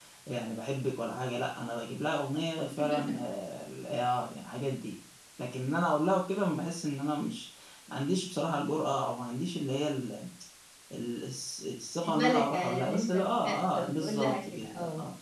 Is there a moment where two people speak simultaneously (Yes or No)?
Yes